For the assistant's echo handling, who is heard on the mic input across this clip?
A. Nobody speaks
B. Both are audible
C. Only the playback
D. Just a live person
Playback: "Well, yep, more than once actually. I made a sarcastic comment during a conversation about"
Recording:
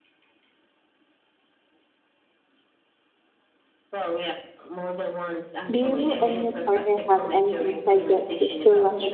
B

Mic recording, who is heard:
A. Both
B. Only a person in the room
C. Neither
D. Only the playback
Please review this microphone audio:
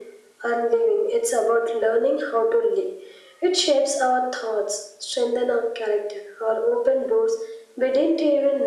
D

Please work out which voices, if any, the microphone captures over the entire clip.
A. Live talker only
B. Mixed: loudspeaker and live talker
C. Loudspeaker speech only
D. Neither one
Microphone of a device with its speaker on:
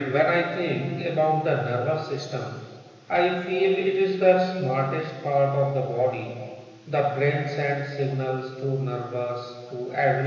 C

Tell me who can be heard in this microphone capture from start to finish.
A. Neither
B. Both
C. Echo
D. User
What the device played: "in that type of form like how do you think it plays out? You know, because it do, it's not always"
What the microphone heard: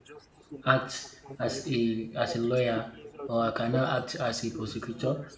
B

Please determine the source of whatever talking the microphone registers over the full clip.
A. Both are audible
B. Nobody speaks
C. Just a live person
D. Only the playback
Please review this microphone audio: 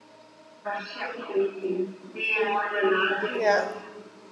A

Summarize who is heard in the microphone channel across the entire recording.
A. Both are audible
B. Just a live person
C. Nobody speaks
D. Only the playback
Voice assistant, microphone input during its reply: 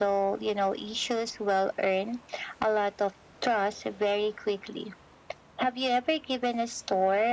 D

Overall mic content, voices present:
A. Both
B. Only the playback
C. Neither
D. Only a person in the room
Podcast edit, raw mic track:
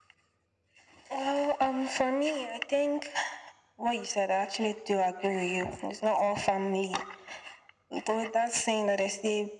B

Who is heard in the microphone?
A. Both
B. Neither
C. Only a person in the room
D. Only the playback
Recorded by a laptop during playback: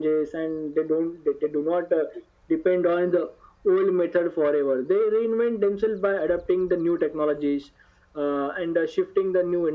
D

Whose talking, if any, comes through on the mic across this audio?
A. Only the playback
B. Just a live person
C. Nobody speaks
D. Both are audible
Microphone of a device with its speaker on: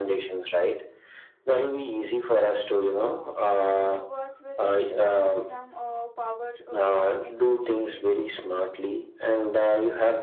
D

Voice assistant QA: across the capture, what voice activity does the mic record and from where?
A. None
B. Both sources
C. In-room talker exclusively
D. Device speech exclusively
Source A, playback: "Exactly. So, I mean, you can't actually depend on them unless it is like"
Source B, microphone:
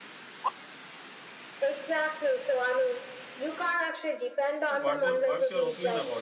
B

